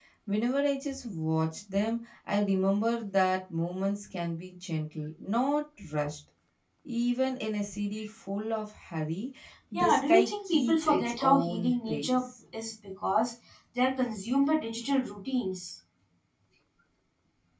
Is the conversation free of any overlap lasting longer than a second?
No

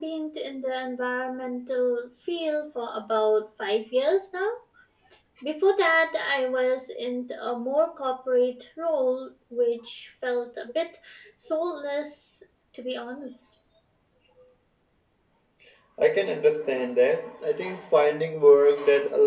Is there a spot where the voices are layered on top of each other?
No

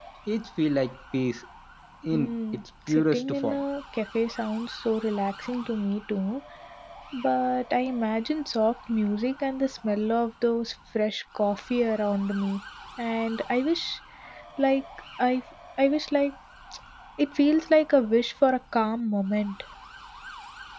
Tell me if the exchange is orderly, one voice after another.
No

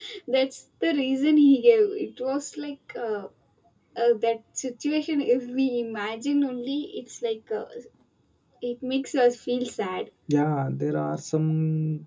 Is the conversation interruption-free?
Yes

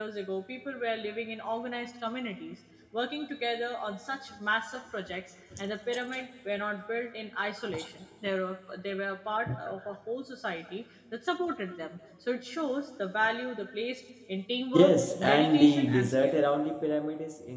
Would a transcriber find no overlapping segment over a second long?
No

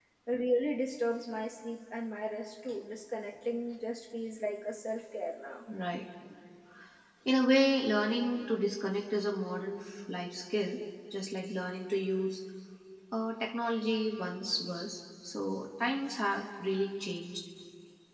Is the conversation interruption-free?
Yes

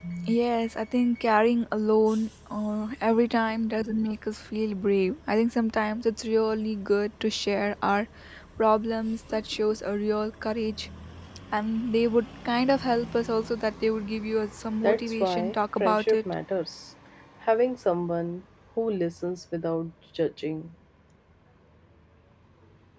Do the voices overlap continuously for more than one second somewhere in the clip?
Yes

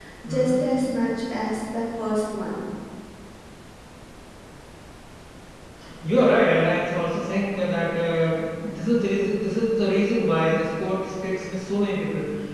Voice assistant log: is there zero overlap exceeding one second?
Yes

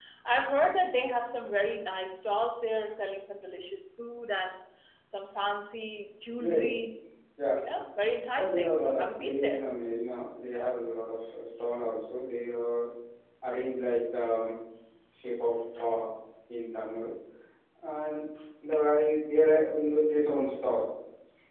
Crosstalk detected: Yes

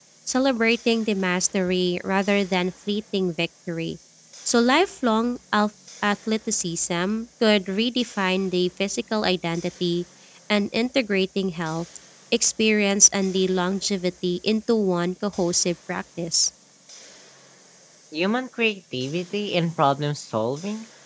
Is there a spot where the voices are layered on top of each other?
No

